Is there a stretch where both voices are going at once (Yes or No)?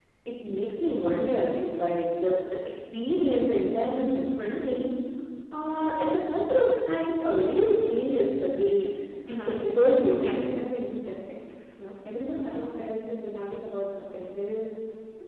Yes